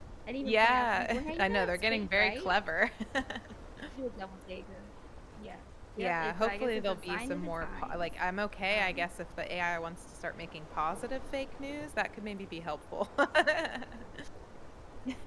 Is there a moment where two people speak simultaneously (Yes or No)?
Yes